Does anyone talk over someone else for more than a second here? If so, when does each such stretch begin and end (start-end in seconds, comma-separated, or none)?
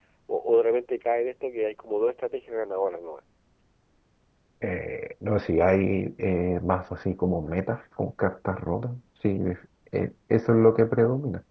none